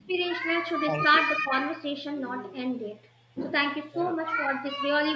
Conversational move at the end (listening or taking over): listening